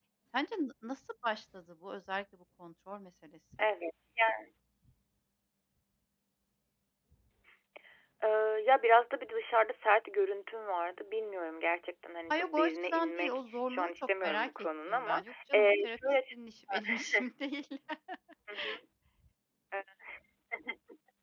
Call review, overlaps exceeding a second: present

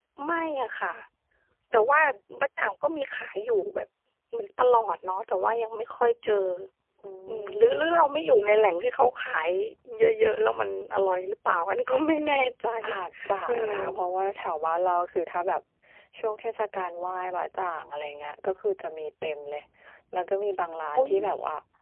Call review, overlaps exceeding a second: none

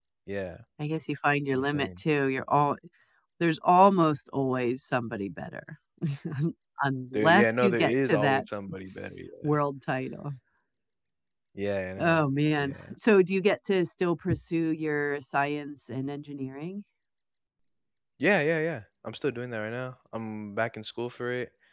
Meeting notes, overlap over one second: present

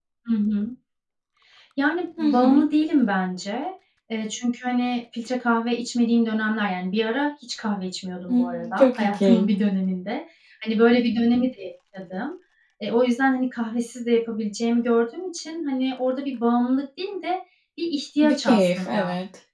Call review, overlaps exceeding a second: present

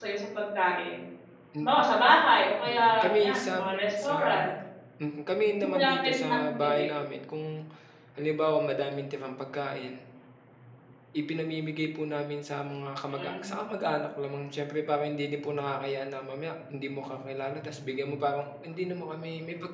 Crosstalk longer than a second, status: present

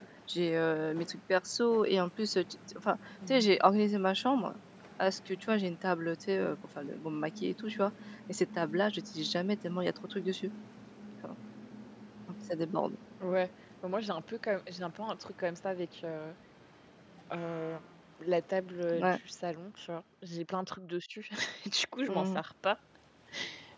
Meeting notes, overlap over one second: none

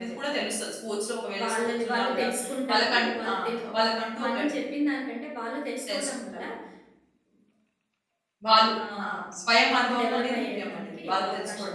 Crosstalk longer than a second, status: present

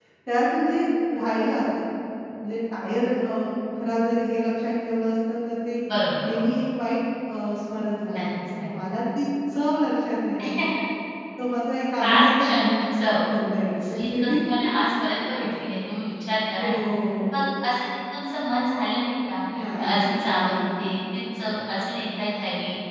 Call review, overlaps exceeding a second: present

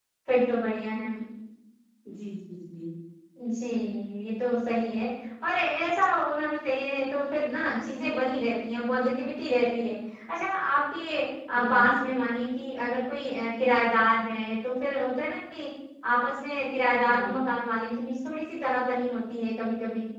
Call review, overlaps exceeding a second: none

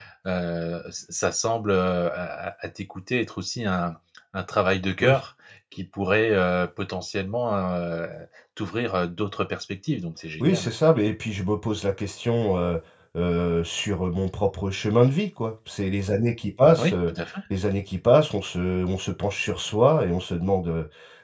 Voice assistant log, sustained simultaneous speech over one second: none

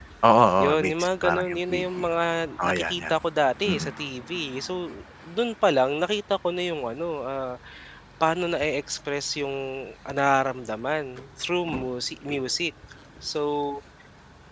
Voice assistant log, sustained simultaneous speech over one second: present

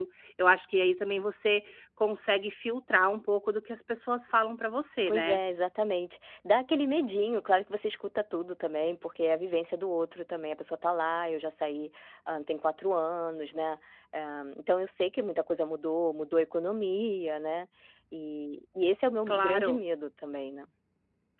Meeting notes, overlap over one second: none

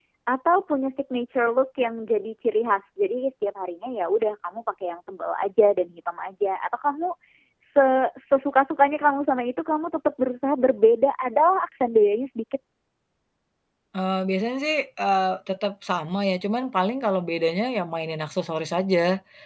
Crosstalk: none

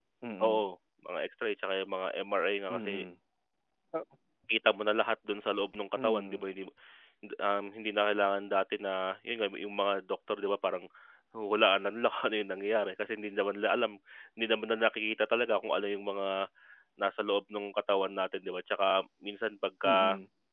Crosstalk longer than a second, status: none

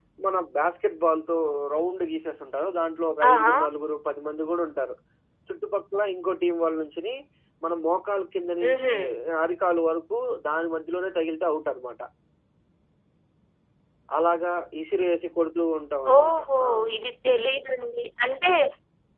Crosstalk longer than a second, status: none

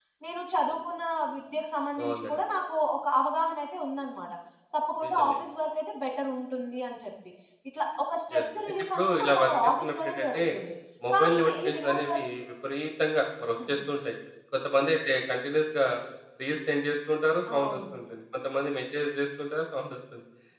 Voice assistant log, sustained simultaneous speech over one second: present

